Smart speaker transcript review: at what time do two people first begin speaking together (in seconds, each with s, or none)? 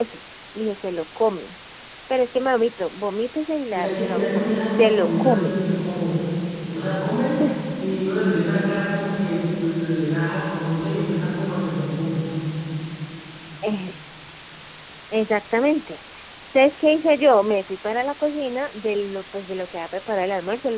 3.7 s